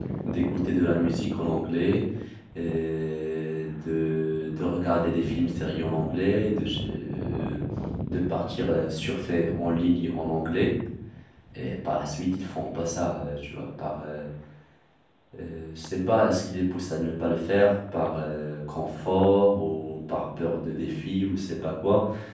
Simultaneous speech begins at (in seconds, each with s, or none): none